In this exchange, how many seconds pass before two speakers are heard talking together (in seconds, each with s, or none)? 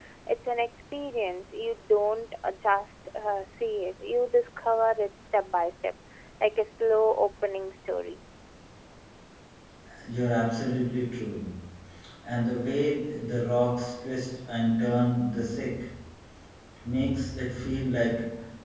none